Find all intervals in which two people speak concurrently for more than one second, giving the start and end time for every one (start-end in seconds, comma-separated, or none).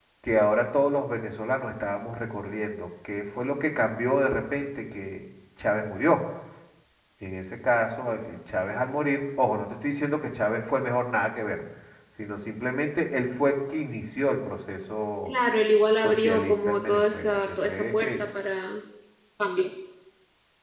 16.0-18.3